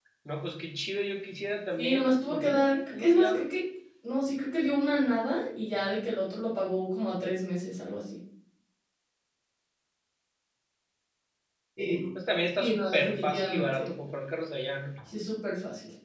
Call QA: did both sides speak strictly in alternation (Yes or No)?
No